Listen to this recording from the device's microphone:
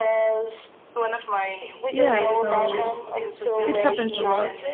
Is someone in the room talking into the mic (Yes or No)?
Yes